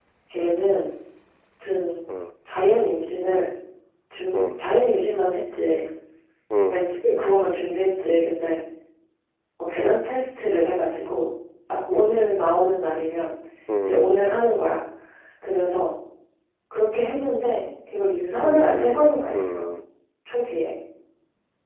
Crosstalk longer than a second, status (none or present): present